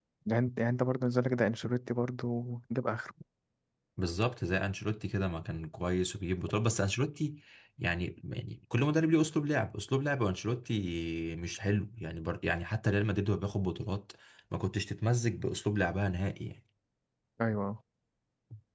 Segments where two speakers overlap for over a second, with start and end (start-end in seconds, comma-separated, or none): none